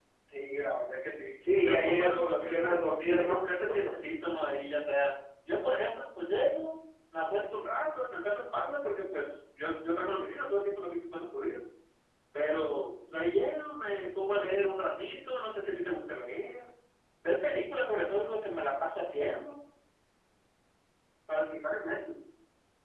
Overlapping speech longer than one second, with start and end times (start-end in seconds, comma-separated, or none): 1.6-3.4